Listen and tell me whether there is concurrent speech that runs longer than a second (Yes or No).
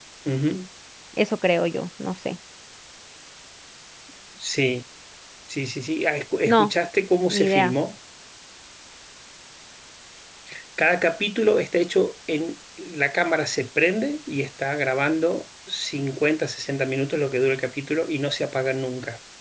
No